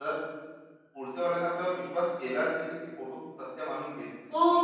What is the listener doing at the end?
taking over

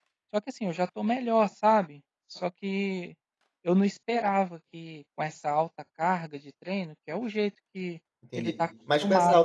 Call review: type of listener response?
taking over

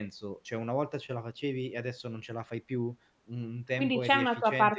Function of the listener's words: taking over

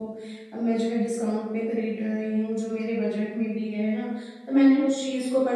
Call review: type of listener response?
listening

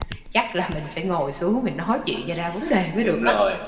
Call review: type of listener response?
taking over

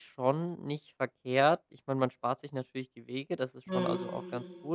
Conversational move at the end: listening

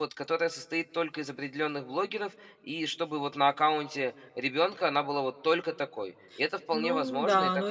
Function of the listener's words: taking over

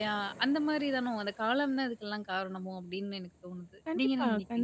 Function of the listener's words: taking over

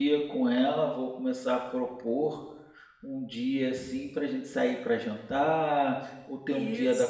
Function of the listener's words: listening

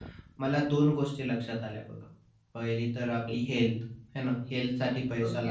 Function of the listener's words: listening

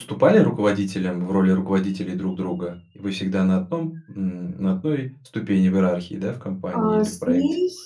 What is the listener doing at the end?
taking over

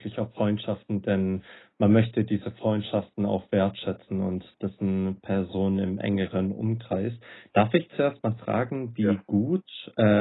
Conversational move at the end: listening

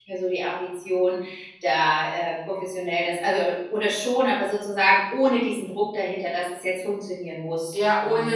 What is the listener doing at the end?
taking over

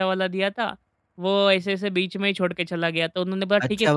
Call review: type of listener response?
taking over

